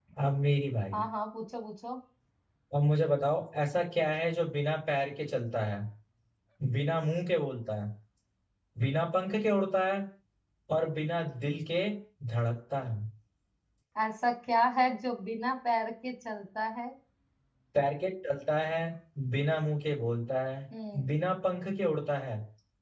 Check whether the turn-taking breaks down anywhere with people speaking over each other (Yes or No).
No